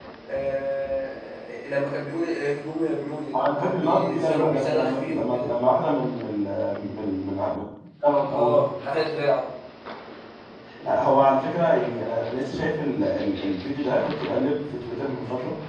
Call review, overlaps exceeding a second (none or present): present